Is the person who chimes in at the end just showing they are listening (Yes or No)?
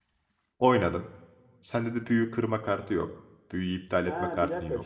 No